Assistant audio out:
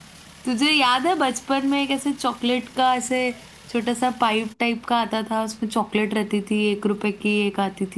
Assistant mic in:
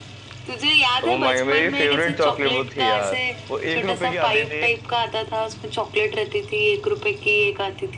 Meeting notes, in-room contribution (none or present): present